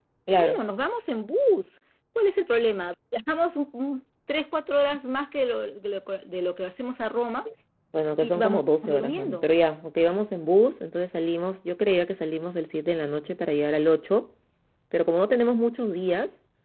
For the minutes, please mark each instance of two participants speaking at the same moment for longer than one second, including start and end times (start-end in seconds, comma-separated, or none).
8.2-9.5